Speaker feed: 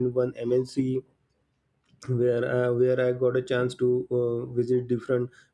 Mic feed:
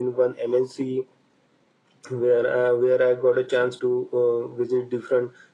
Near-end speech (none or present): none